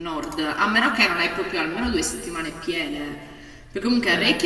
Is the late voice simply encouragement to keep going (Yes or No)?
Yes